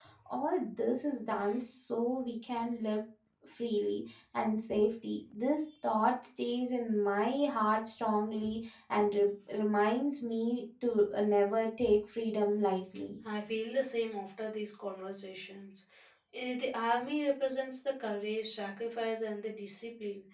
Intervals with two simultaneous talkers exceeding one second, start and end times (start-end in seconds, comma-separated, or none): none